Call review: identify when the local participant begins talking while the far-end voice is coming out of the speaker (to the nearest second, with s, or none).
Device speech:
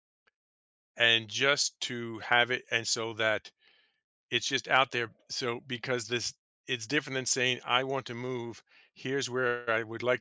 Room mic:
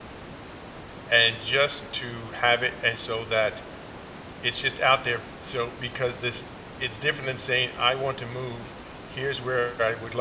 none